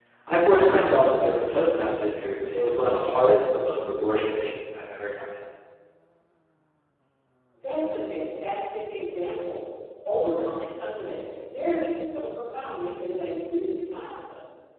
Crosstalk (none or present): none